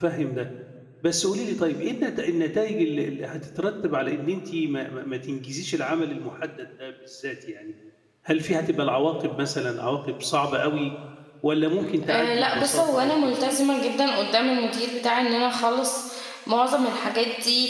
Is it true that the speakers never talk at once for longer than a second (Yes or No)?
No